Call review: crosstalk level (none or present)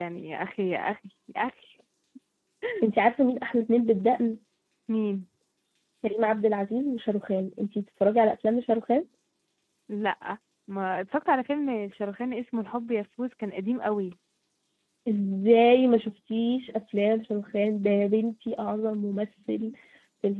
none